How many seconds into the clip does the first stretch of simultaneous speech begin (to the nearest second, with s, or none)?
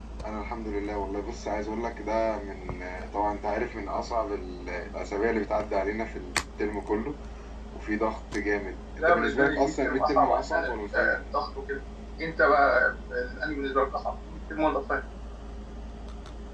9 s